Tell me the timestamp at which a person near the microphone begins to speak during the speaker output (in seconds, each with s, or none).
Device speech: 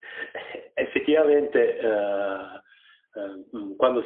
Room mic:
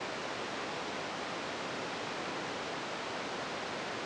none